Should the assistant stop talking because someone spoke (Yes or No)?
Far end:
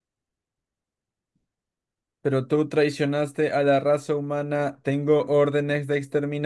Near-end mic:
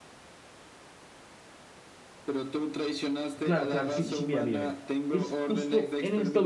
Yes